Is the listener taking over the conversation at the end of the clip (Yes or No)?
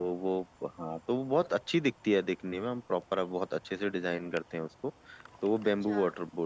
No